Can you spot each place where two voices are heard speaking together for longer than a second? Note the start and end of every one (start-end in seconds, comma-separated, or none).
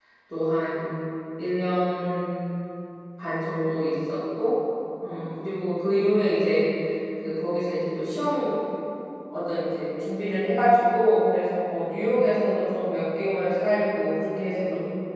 none